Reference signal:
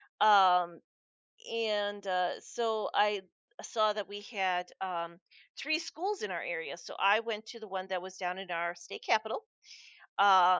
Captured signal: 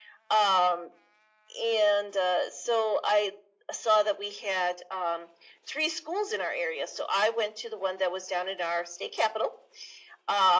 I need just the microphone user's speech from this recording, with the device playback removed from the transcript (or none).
none